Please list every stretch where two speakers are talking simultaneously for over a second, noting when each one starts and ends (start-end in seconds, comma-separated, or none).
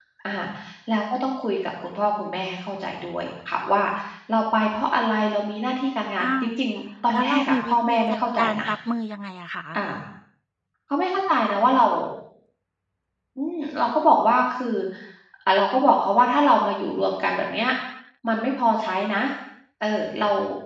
7.1-8.7